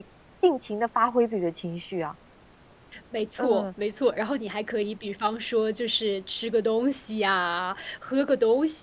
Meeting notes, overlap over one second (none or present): none